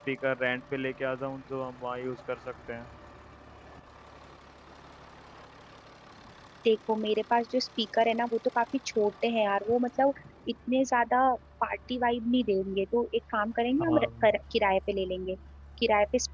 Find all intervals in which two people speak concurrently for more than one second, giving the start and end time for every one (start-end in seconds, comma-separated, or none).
none